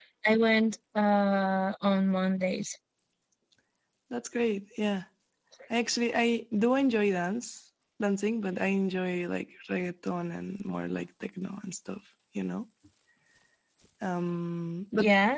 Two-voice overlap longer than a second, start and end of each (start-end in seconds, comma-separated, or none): none